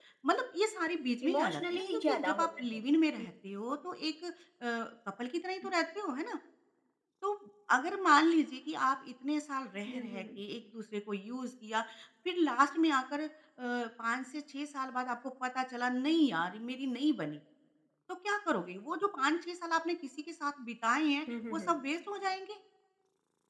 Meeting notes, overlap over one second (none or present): present